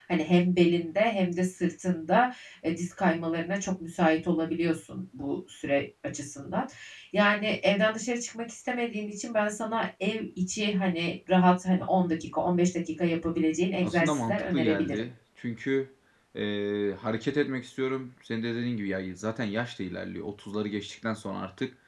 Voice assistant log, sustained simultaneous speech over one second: present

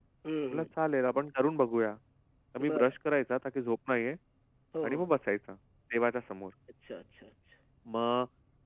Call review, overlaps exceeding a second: none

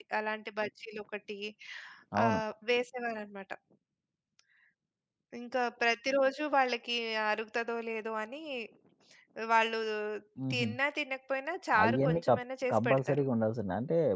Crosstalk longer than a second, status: present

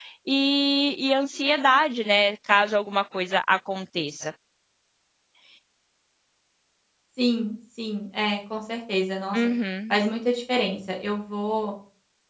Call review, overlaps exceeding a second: none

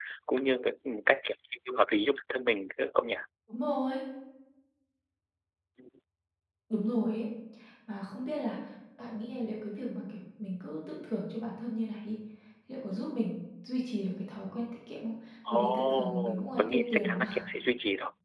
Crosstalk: present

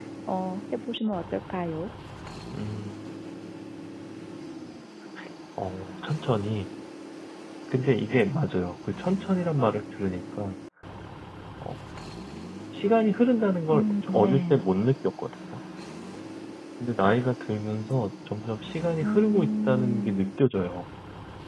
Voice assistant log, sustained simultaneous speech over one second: present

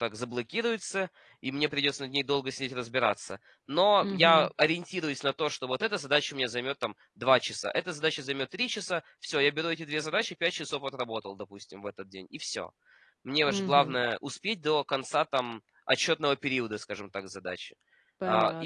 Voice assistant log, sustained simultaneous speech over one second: none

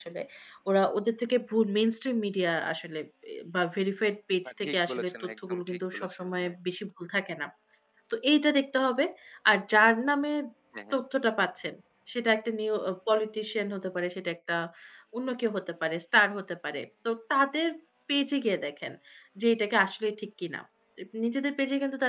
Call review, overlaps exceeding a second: present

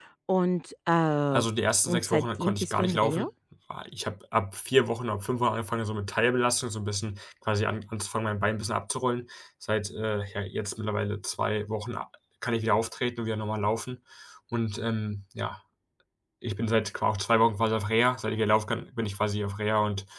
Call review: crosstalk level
present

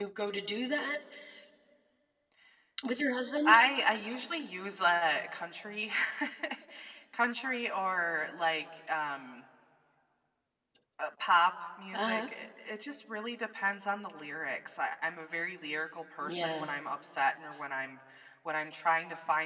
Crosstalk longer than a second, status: none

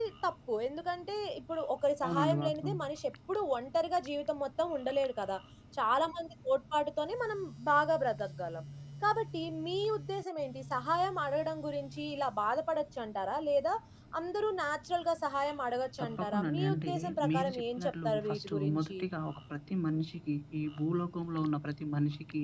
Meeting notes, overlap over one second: present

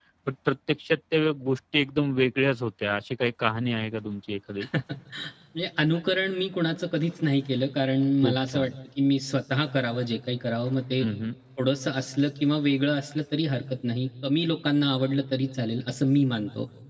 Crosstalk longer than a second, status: none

